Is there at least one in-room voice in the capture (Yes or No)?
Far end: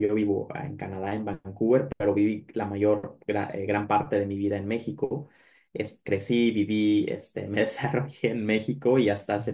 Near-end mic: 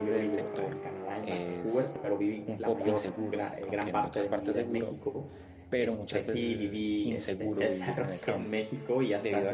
Yes